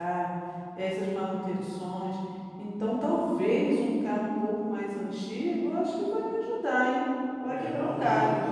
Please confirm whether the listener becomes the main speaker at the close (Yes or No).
Yes